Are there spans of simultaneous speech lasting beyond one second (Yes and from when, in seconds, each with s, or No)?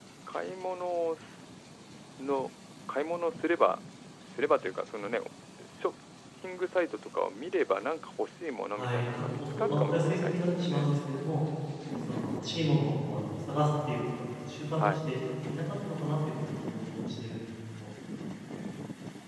Yes, from 8.7 s